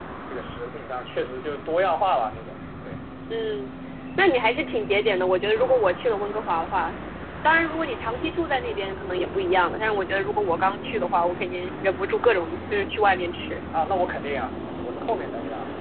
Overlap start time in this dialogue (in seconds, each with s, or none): none